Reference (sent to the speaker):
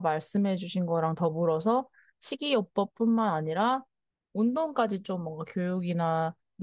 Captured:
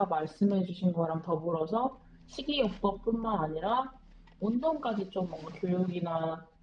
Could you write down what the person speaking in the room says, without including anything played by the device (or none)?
none